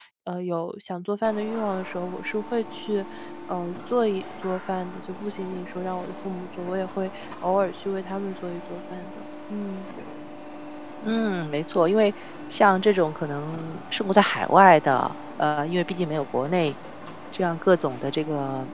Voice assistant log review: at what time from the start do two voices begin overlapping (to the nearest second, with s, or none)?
none